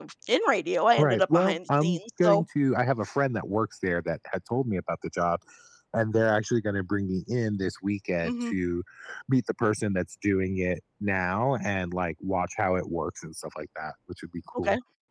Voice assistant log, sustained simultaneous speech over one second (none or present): present